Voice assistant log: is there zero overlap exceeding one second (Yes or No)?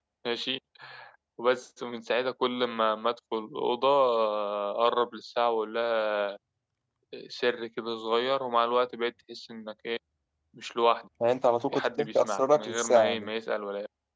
No